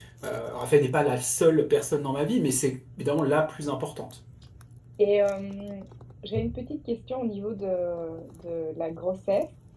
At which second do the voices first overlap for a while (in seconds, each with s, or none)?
none